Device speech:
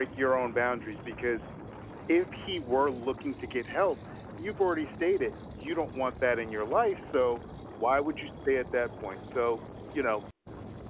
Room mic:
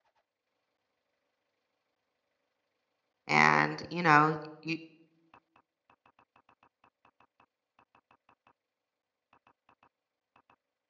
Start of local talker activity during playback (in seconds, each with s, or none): 3.3 s